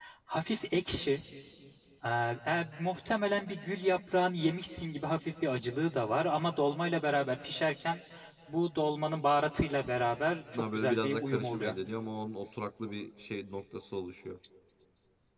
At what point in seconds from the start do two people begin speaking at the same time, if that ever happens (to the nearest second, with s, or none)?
11 s